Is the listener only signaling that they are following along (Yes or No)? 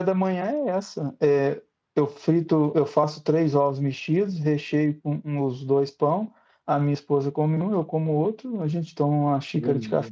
Yes